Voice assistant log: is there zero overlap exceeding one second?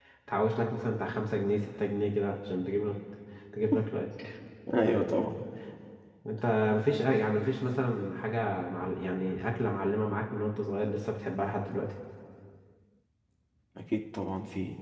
Yes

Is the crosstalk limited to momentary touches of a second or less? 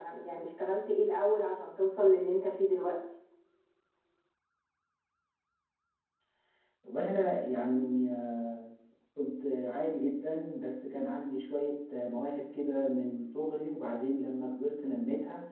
Yes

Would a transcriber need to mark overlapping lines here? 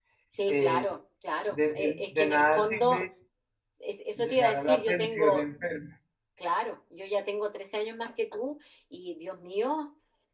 Yes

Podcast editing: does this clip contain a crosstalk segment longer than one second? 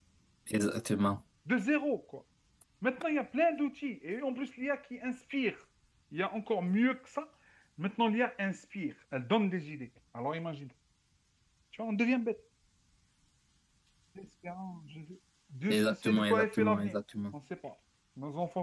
Yes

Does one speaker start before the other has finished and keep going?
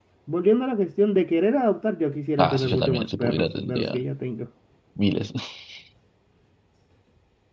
Yes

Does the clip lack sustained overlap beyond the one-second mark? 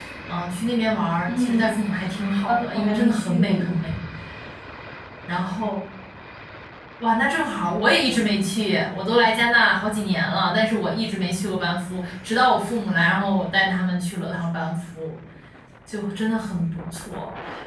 No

